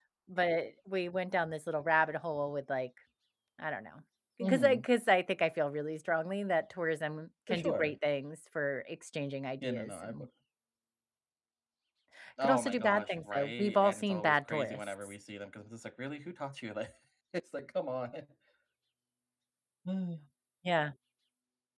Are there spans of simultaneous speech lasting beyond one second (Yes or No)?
Yes